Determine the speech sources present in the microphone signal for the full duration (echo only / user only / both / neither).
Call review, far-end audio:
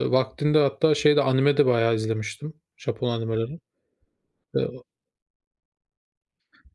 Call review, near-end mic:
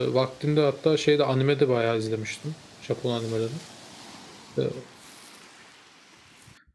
echo only